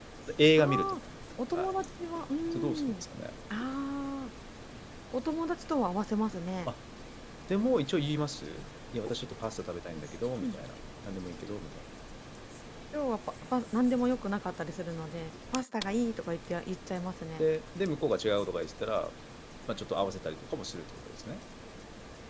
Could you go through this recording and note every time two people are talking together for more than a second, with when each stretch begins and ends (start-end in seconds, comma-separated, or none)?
none